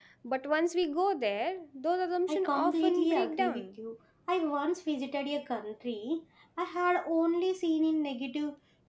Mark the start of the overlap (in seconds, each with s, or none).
2.3 s